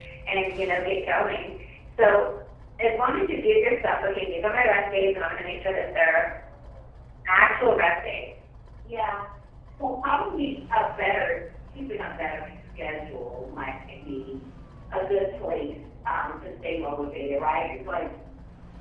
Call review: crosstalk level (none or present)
none